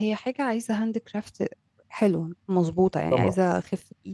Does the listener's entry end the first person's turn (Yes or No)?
No